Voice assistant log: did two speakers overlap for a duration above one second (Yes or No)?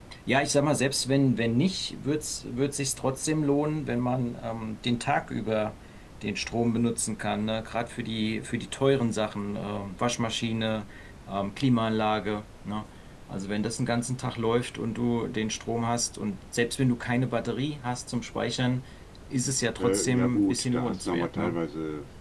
Yes